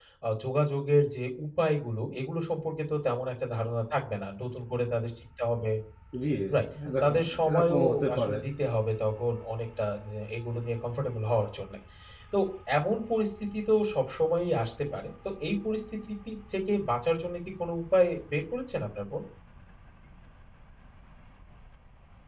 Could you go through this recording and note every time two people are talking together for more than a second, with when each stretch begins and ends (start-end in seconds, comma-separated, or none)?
7.0-8.3